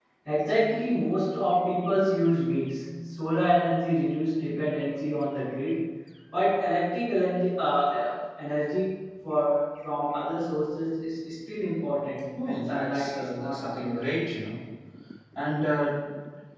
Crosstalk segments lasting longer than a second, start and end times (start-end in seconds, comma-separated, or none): 12.4-14.1